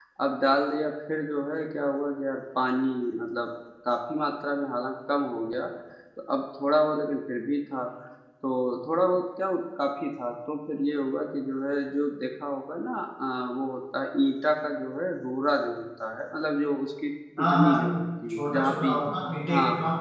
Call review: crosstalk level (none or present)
present